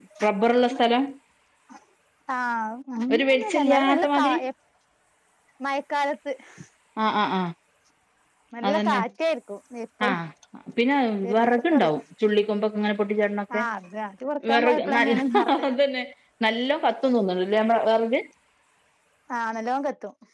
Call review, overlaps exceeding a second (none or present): present